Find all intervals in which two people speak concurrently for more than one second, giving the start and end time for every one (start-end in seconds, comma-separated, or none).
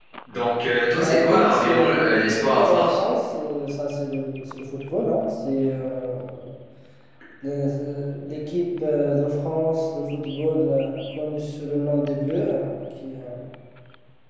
1.0-3.0